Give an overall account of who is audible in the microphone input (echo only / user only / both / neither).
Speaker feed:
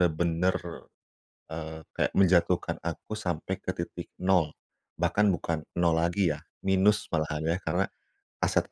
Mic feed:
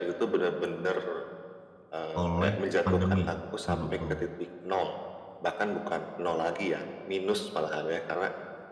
both